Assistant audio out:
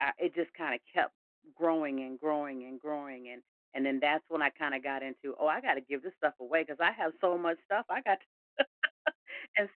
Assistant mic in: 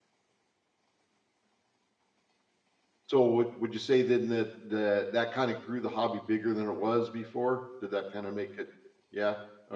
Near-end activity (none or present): present